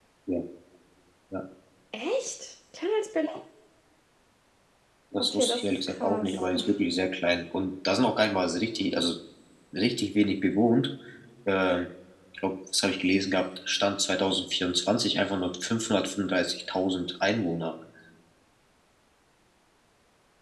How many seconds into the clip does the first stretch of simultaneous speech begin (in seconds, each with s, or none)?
5.2 s